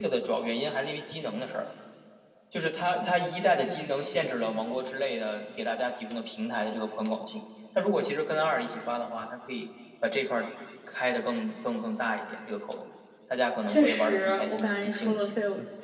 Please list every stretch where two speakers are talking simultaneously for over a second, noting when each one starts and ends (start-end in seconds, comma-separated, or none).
13.7-15.3